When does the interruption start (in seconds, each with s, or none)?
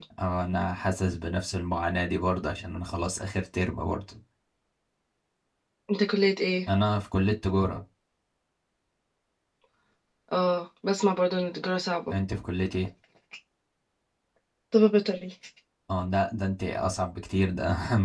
none